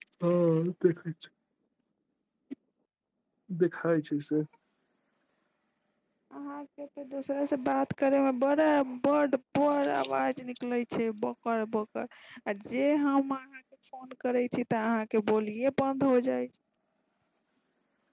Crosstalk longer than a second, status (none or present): none